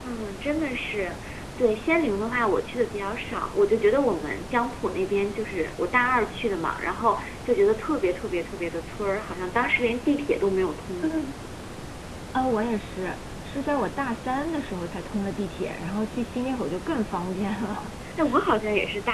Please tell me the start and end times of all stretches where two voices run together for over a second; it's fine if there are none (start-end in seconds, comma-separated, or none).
none